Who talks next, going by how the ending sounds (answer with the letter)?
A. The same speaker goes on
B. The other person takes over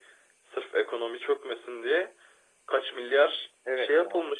B